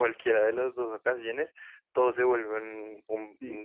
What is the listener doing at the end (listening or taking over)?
taking over